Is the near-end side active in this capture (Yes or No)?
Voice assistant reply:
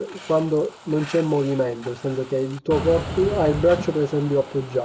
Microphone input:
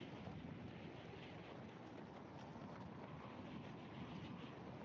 No